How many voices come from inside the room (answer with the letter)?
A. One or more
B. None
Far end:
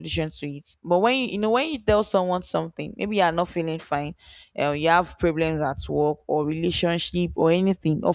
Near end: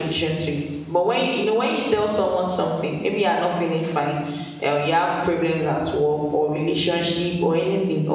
B